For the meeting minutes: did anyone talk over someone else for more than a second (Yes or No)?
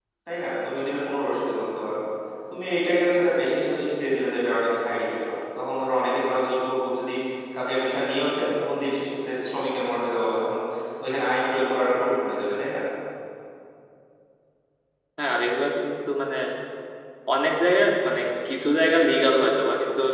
No